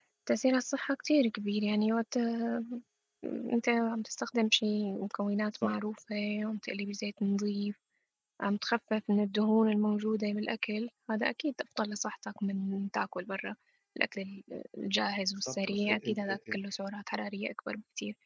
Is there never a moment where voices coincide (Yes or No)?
No